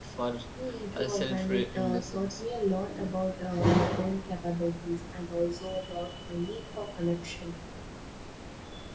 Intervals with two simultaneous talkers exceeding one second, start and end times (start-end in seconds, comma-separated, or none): 0.9-2.4